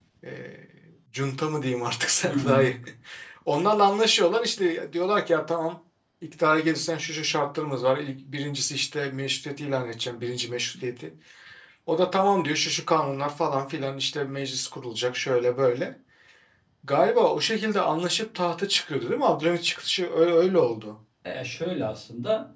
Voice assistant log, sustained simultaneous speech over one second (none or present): none